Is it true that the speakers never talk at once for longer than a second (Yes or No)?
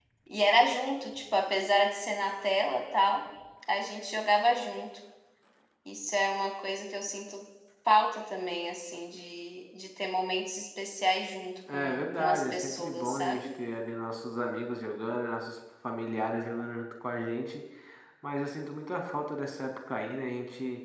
No